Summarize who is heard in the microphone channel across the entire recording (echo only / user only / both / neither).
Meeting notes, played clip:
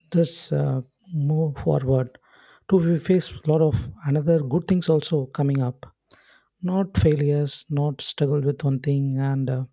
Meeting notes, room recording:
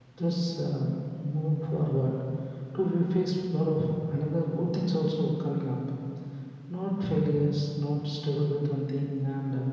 echo only